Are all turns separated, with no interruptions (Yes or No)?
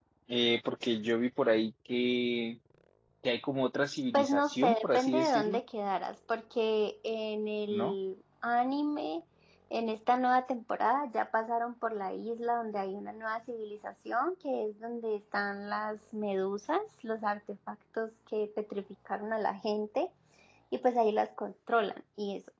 No